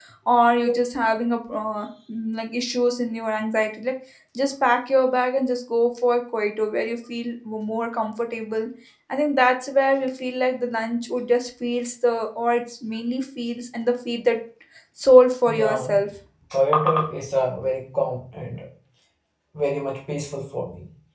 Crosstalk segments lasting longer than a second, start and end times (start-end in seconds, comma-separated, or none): none